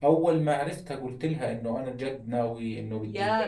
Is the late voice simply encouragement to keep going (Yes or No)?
No